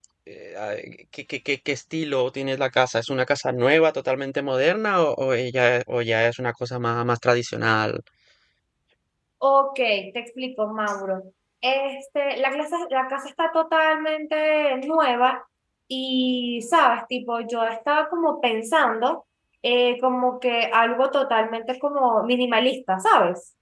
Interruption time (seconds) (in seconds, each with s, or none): none